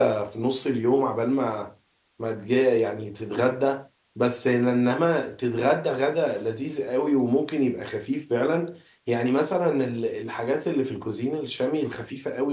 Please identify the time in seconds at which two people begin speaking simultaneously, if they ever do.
none

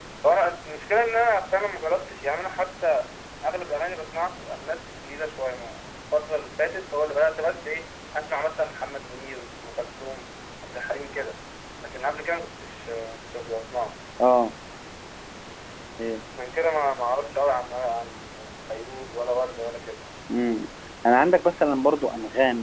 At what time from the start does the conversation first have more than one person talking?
none

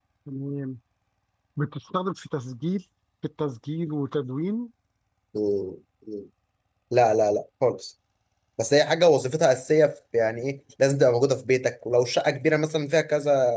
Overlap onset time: none

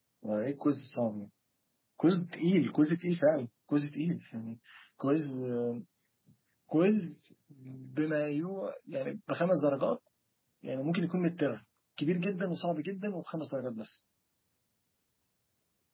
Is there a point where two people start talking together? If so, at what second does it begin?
none

